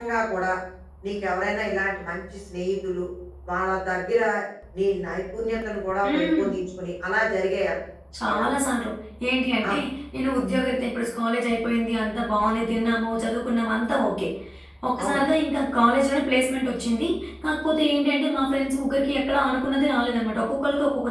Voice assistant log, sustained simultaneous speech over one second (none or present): none